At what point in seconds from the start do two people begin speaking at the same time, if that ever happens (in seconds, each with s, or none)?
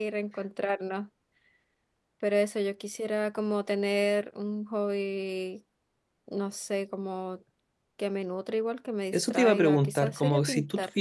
9.1 s